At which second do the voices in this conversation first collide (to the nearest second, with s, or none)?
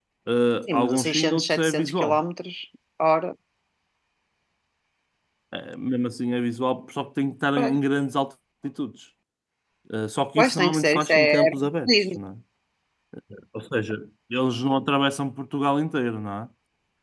1 s